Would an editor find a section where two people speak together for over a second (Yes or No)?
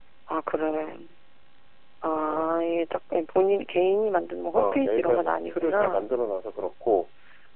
Yes